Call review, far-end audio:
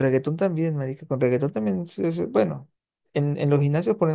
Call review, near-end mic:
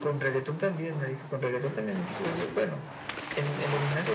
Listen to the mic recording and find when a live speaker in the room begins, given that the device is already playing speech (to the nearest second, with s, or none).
none